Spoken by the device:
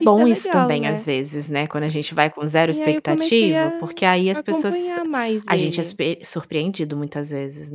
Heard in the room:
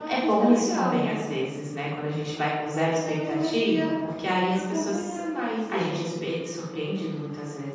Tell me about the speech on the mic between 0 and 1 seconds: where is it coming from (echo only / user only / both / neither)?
echo only